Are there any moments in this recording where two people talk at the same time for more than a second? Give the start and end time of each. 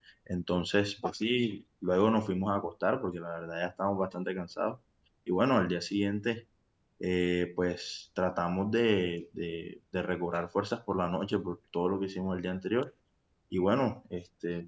none

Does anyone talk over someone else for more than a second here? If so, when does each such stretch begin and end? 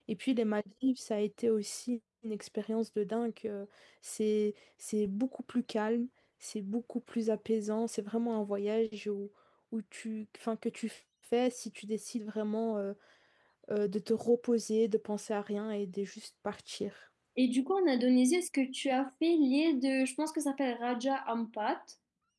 none

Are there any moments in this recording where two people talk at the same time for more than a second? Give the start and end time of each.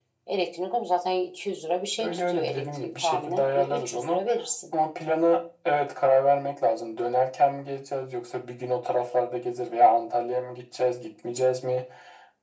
2.0-4.2

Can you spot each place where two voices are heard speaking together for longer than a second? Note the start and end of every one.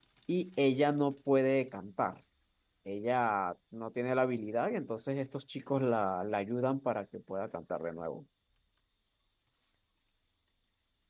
none

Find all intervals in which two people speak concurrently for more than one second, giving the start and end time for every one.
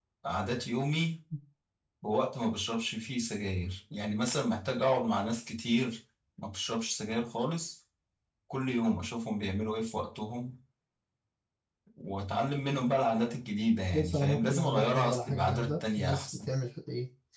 13.9-16.5

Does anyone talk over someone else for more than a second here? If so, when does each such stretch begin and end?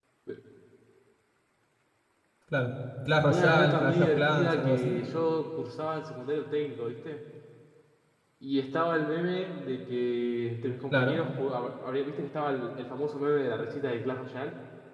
3.3-5.0

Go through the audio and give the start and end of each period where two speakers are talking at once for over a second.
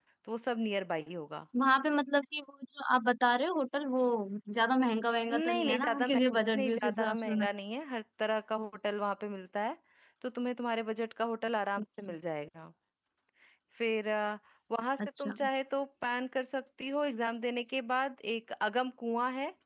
5.3-7.5

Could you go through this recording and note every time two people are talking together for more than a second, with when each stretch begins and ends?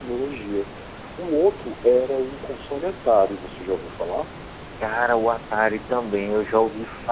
none

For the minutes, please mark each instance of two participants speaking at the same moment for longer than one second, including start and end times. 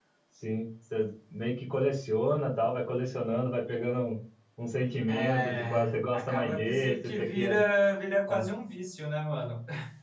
5.1-7.6

